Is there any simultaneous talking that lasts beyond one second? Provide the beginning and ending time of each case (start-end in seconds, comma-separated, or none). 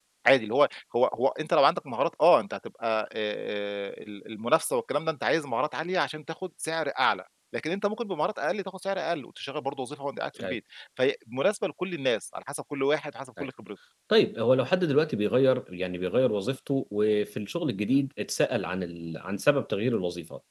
none